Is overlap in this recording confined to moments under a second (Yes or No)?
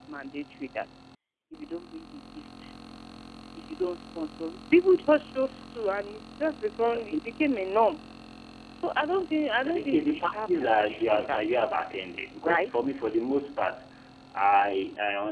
No